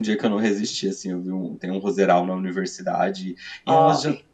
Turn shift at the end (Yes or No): No